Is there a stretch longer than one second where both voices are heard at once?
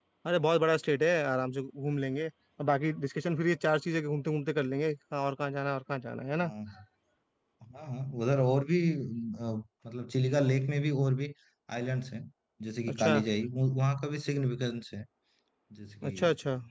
No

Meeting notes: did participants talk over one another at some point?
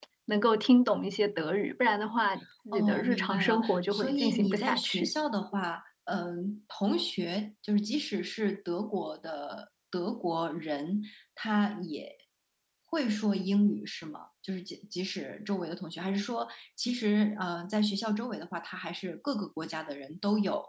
Yes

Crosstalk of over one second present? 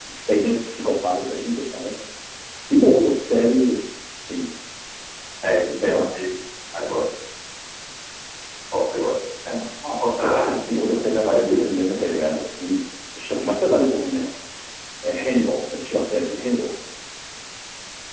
Yes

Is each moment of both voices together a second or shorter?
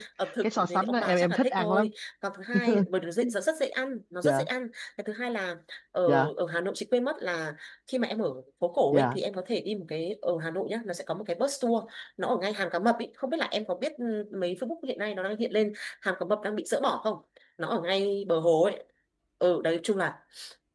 No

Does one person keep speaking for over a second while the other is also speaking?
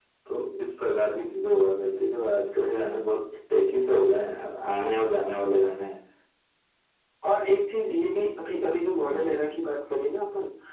No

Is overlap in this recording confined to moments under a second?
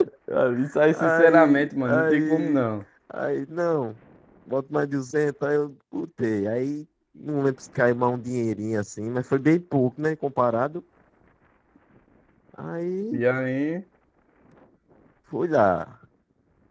No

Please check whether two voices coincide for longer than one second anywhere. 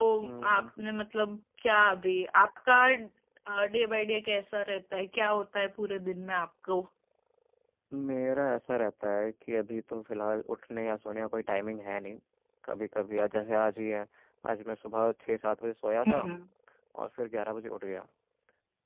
No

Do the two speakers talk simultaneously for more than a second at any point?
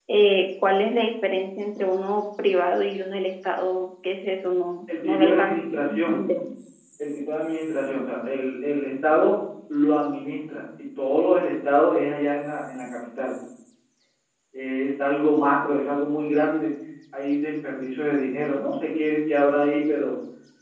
Yes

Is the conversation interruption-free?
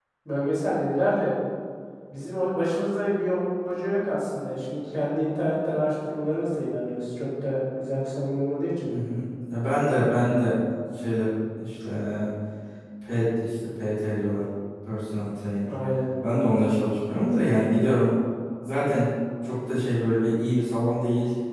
Yes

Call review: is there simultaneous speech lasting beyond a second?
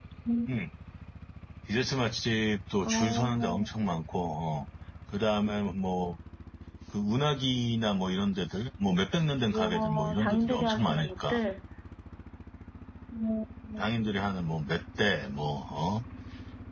Yes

